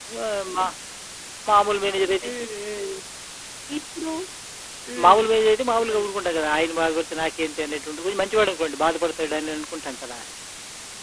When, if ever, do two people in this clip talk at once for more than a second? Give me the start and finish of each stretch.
none

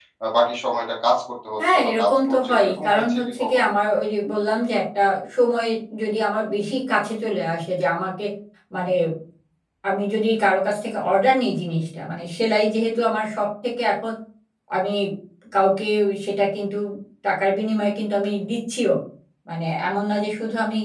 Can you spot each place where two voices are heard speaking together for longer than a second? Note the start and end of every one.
1.7-3.7

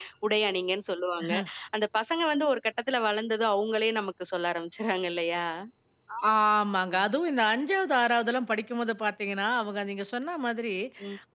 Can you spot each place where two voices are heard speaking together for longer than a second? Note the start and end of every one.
none

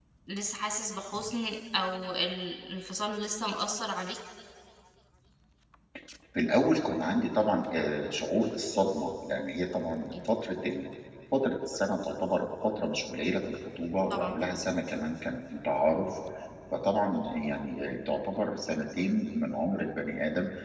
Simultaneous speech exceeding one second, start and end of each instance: none

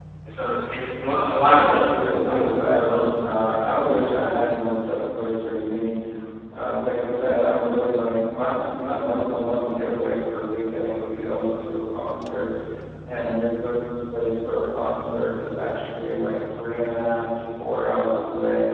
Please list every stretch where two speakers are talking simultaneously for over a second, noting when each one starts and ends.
1.4-3.2

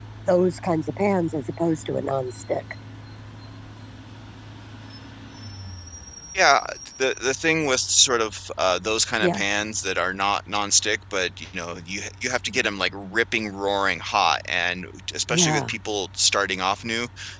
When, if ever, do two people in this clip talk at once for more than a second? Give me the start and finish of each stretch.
none

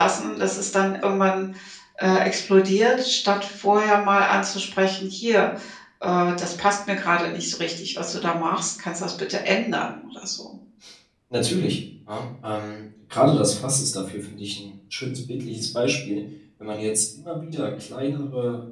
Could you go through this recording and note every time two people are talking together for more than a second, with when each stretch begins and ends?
none

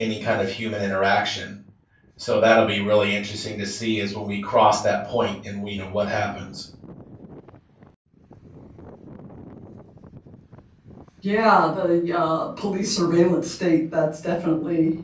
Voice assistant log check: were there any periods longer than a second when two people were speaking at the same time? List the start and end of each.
none

